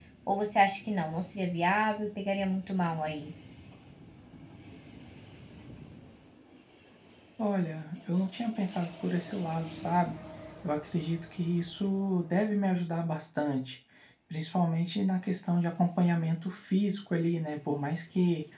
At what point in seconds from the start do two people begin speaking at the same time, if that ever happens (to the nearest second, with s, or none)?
none